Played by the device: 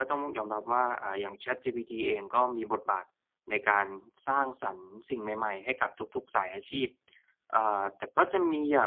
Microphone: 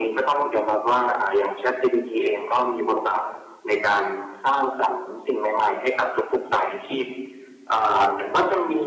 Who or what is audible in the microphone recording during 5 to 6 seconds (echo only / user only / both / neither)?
echo only